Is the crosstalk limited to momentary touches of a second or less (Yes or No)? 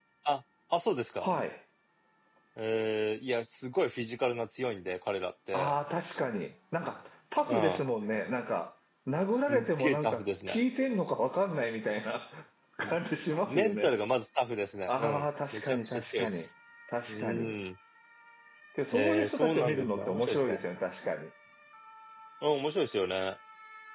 No